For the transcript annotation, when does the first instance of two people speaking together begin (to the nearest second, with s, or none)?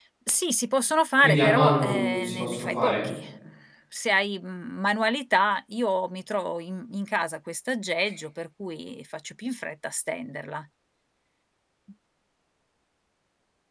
1 s